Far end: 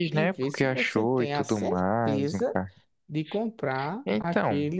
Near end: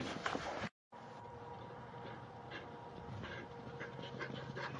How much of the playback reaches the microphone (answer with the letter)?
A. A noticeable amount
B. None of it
B